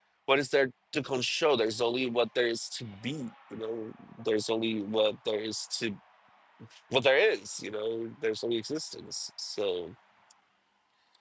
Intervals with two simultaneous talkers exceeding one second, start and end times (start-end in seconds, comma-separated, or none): none